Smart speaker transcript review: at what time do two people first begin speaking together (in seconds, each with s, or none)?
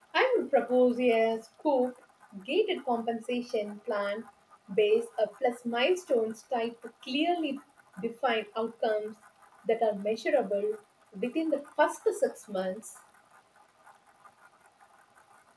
none